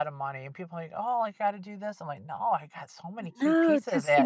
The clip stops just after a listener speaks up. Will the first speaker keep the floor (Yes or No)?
No